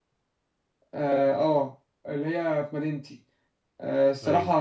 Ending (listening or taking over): listening